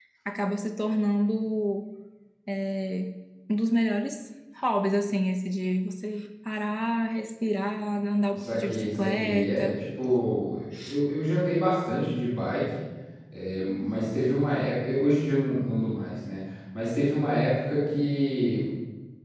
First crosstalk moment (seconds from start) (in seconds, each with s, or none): 8.3 s